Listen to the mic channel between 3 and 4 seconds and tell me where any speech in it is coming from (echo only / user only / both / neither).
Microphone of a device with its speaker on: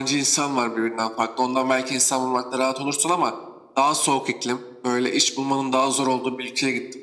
echo only